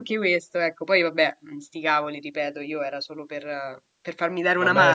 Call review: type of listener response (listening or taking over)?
taking over